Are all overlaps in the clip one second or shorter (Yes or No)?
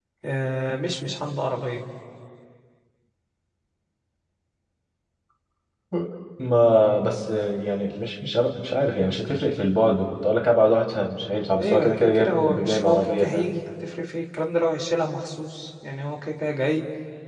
No